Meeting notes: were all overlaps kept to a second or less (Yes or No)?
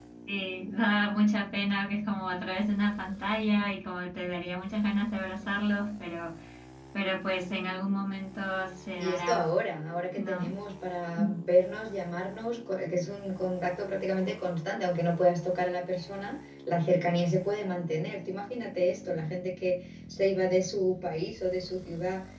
Yes